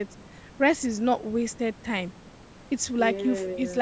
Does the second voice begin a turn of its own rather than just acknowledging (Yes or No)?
No